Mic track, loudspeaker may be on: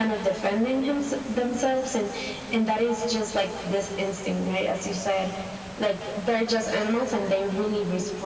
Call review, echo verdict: present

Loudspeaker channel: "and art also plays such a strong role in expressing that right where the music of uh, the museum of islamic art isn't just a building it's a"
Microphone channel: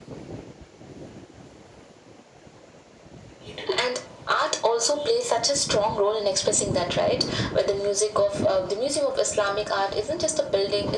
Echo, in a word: present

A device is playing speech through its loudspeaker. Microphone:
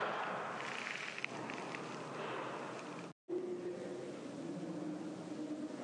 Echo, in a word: none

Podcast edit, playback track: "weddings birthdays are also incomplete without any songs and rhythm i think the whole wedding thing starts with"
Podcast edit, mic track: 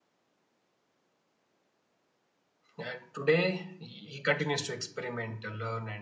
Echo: none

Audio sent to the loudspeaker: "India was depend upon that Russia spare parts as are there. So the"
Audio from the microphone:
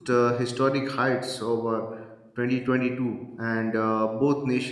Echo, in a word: none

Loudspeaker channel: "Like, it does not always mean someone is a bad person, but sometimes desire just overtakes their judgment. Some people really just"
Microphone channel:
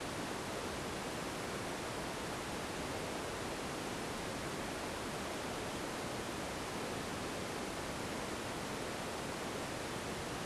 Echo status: none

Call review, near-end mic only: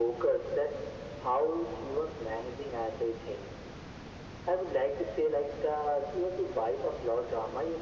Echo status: present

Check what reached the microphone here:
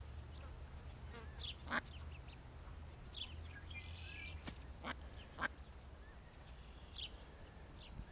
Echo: none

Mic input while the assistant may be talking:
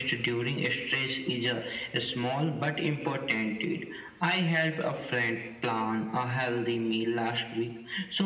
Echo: present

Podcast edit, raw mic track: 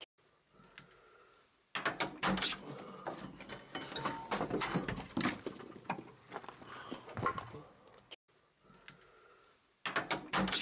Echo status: none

